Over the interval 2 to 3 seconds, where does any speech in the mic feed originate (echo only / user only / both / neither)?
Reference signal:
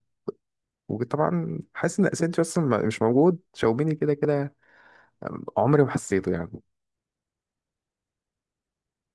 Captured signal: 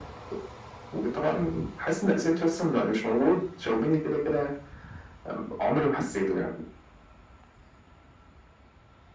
echo only